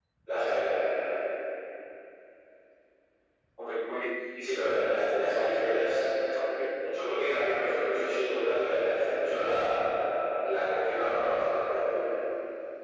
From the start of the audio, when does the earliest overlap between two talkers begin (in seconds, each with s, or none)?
4.4 s